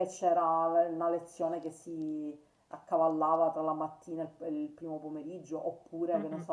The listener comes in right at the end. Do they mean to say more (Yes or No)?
No